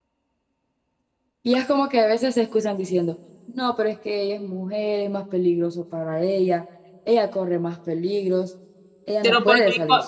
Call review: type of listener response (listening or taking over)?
taking over